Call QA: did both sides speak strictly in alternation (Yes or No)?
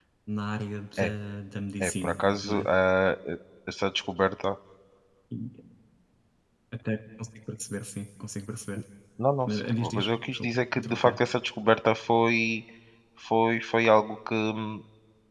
No